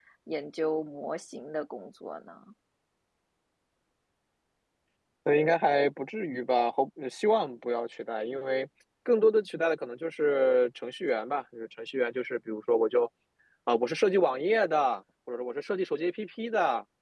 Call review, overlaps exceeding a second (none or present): none